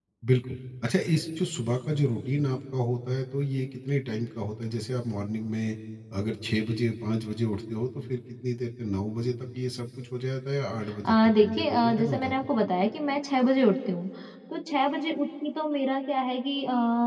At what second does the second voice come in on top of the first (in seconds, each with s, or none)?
11.0 s